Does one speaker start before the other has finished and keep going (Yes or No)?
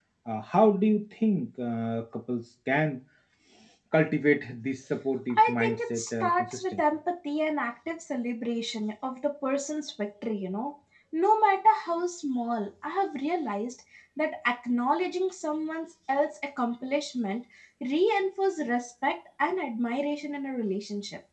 Yes